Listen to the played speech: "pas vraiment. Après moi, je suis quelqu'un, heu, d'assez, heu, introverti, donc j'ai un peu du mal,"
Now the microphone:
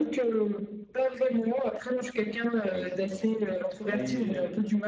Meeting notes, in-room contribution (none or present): present